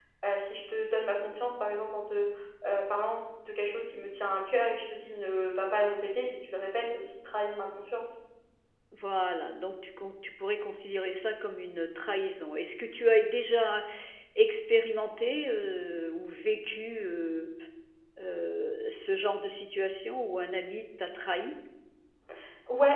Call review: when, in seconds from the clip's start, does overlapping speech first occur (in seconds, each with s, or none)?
none